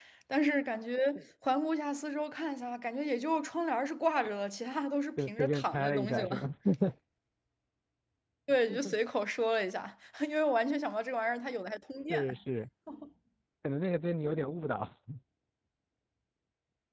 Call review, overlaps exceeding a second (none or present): present